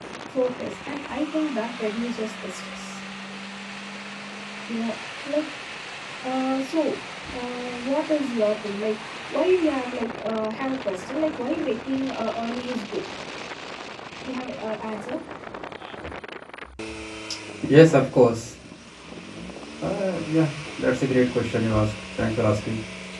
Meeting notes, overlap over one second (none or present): none